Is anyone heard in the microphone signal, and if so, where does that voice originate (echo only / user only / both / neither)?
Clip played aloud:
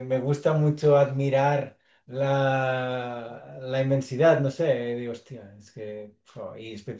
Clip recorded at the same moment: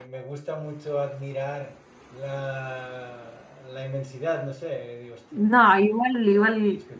both